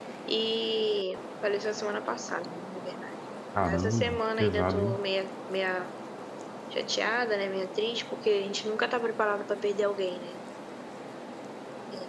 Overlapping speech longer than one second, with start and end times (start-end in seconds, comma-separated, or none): 3.7-5.0